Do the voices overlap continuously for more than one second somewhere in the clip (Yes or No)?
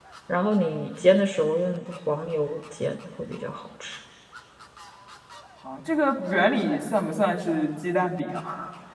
No